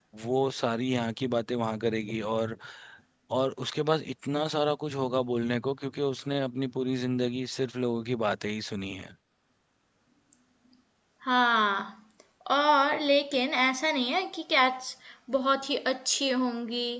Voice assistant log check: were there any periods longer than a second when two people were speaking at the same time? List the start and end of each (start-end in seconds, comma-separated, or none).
none